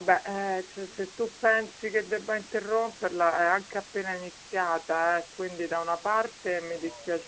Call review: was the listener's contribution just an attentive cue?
Yes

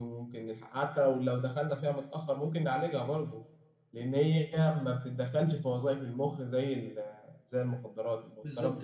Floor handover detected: Yes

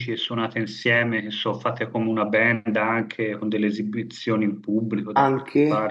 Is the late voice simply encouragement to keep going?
No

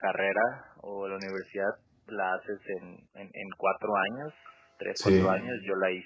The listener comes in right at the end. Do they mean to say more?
No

